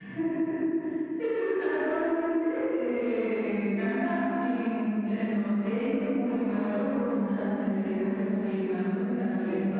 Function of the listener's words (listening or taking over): taking over